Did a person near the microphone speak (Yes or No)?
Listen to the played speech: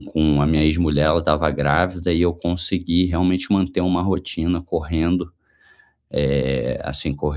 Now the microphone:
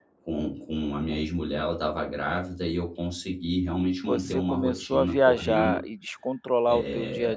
Yes